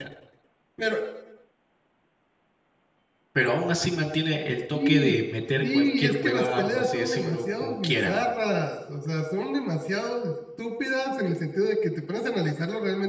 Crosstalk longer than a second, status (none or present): present